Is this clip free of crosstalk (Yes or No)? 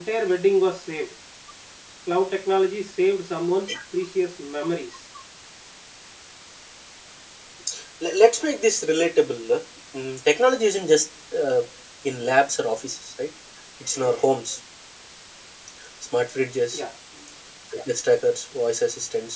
Yes